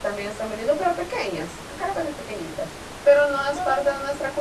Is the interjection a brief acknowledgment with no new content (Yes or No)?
Yes